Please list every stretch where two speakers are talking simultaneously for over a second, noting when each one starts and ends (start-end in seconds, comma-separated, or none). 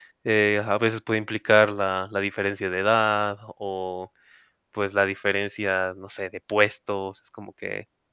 none